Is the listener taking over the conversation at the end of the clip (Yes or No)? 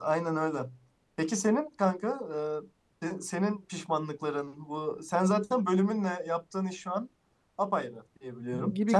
Yes